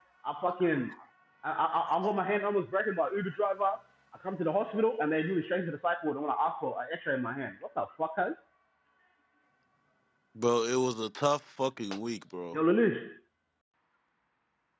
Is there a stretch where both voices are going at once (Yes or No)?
No